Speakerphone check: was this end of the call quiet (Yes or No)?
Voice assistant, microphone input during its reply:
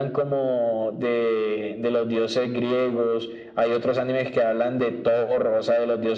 Yes